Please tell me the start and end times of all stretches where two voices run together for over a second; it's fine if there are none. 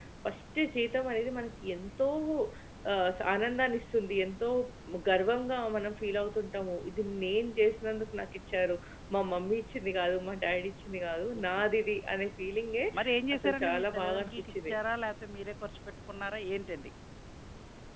13.4-14.8

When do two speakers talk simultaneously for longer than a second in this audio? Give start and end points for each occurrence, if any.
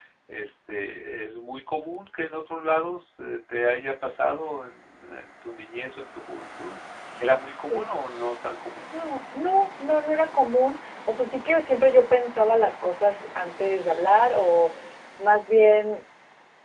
none

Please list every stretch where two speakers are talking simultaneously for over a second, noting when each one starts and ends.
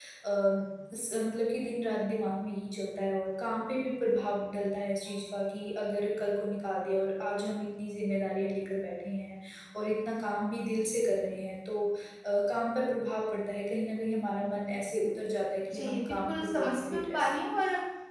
15.7-17.4

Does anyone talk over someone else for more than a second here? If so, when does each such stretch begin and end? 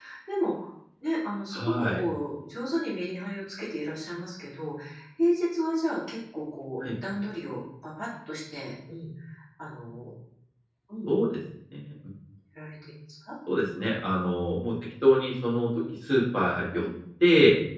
none

